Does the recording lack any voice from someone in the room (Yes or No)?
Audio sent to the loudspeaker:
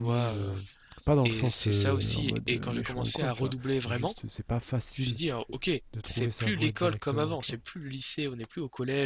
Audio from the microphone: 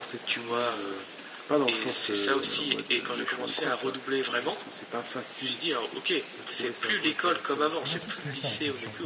No